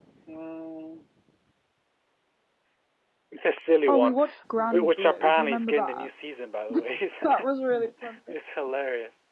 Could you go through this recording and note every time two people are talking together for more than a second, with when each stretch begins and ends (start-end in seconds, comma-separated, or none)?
4.6-6.1